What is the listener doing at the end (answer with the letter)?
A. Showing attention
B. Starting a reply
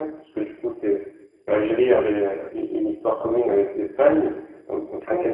A